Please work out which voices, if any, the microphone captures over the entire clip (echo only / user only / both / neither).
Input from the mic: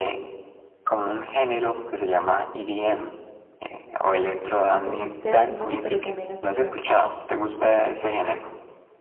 both